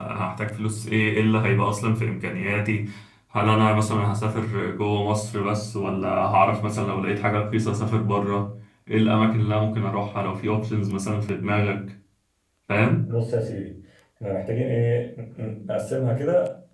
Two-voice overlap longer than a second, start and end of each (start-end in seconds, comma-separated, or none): none